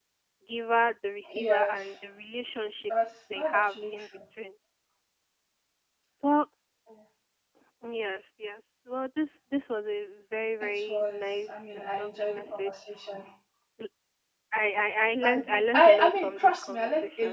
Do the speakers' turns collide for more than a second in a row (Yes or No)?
Yes